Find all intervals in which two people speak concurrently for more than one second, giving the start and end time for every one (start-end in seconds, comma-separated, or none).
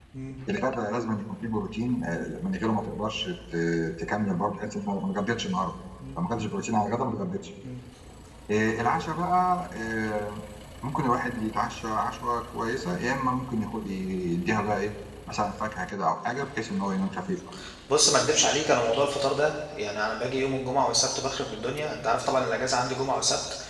none